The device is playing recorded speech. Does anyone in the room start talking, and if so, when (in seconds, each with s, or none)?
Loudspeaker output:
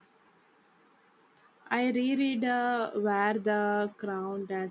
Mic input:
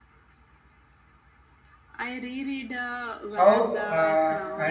3.4 s